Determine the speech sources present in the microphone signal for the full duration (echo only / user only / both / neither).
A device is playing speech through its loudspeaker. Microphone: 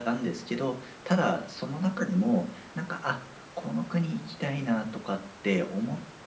echo only